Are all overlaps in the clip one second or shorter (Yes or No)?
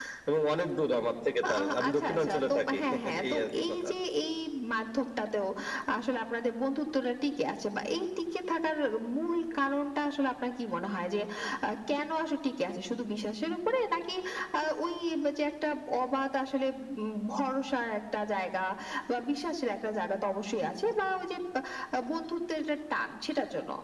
No